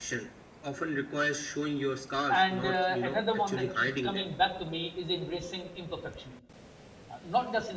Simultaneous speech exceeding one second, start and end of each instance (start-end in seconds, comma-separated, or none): 2.3-4.3